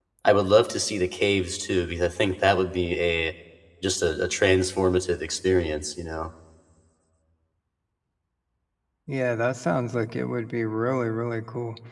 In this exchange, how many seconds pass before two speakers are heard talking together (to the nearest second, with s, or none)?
none